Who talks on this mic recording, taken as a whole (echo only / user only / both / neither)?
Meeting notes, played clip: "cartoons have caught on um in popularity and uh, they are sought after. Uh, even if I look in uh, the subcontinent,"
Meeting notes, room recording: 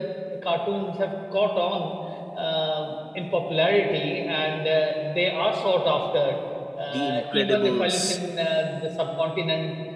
both